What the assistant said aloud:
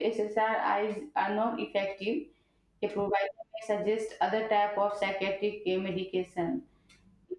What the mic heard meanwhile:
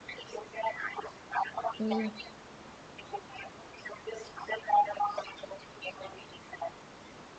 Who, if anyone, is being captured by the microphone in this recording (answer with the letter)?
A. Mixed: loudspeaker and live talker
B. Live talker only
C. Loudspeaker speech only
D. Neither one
A